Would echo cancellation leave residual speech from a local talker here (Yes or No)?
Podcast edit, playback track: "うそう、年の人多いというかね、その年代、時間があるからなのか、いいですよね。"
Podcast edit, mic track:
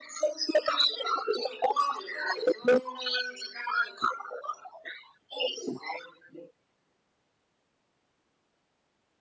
No